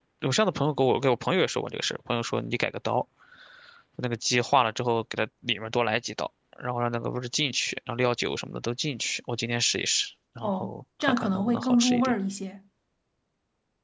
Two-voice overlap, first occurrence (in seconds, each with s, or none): 10.4 s